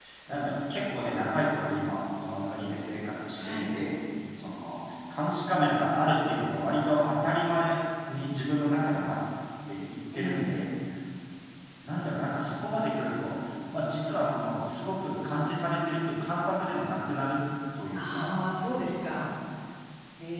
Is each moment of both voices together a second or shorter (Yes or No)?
Yes